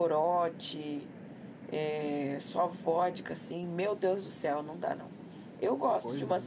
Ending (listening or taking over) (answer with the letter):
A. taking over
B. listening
B